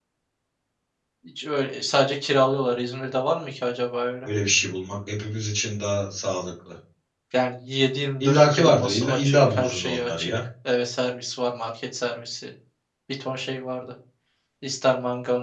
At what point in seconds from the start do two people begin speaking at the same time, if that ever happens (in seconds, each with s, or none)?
8.2 s